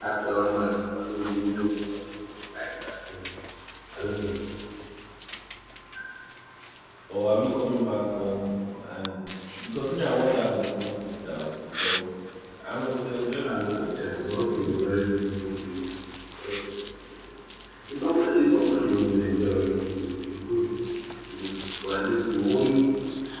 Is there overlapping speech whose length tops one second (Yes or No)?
Yes